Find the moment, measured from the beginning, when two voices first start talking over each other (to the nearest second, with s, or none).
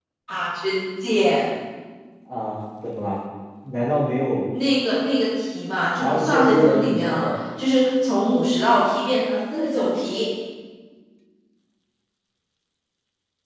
6 s